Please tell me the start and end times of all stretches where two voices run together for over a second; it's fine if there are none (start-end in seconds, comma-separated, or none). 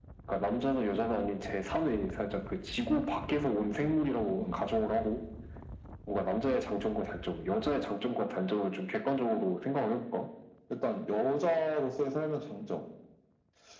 none